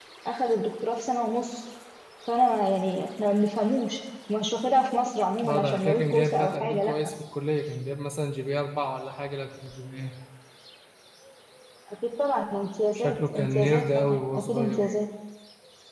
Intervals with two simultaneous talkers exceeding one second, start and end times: 5.5-7.1, 12.9-14.8

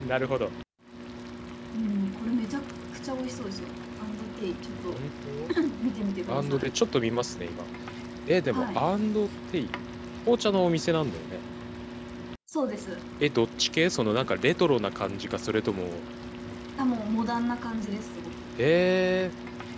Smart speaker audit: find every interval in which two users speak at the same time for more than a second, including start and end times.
none

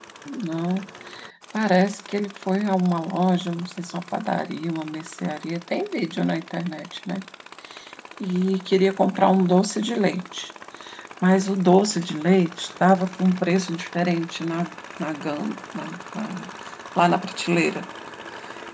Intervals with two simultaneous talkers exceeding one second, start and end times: none

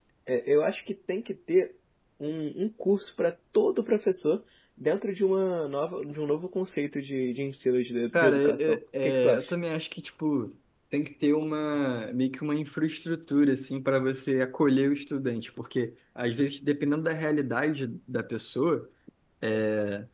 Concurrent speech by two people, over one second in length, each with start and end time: 8.1-9.5

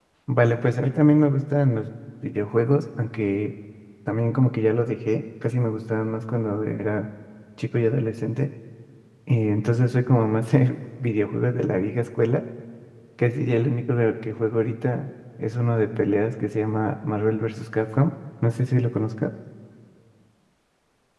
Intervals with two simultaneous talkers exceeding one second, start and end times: none

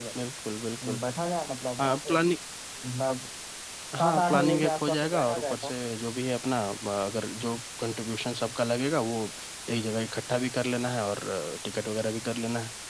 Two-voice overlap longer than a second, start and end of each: 4.0-5.7

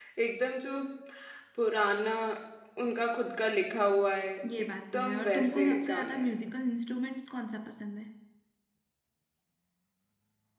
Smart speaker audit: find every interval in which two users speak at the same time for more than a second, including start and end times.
4.6-6.2

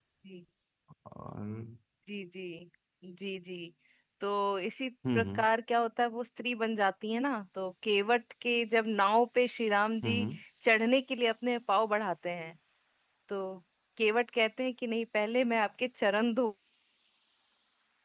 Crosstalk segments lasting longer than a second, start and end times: none

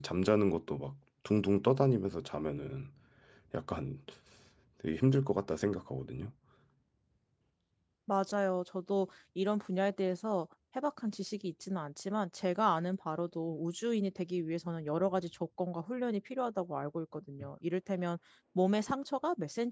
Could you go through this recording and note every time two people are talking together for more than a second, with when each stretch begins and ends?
none

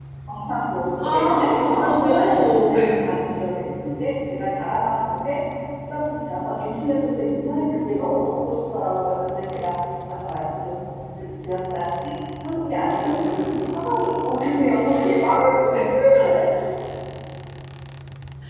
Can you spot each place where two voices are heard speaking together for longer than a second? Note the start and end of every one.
1.0-3.0

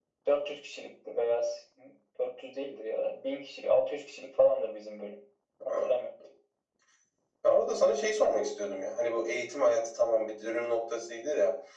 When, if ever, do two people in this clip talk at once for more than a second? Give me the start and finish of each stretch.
none

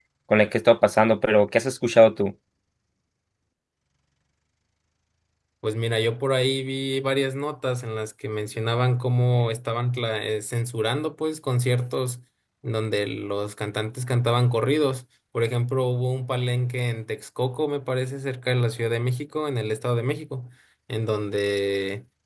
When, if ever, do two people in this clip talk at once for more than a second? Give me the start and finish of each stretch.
none

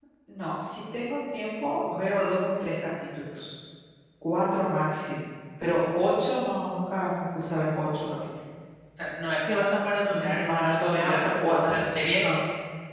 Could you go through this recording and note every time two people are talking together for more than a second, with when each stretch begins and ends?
10.1-11.8

